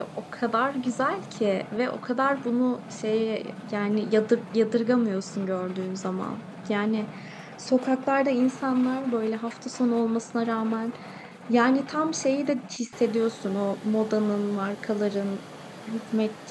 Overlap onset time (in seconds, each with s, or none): none